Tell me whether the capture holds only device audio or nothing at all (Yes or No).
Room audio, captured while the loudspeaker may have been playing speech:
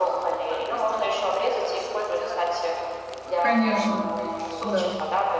No